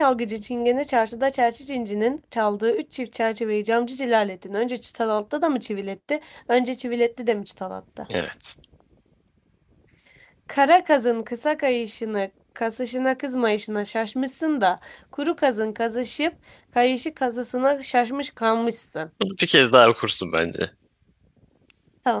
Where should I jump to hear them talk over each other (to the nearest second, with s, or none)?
none